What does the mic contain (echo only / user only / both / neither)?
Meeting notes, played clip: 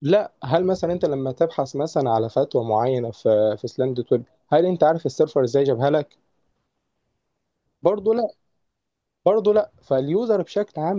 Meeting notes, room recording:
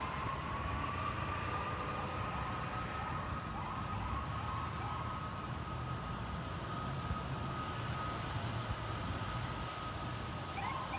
neither